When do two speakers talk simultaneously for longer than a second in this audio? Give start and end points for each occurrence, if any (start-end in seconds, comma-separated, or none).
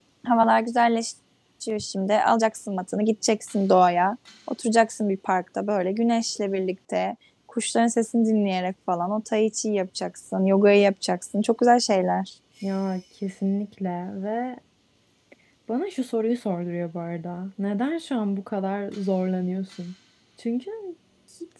none